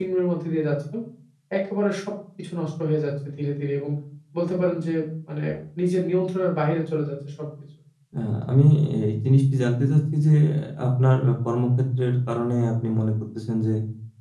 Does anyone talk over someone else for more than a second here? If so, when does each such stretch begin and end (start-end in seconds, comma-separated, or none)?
none